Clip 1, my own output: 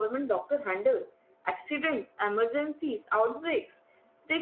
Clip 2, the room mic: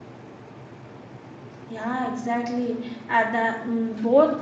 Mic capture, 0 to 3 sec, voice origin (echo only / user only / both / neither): user only